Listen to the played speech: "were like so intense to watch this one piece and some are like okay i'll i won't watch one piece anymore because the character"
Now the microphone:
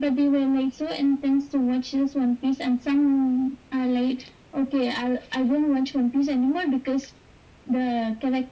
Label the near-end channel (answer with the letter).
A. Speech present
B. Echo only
B